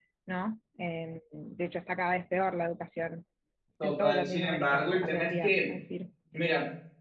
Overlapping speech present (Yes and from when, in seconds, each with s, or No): Yes, from 3.8 s